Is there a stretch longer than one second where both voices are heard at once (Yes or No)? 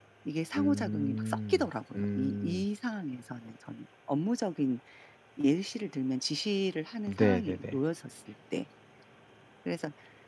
Yes